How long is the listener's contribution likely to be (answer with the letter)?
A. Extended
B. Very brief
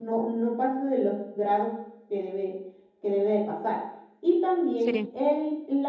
B